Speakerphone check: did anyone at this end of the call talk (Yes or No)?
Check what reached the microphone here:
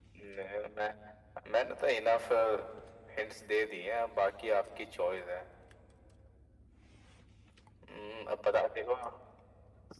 No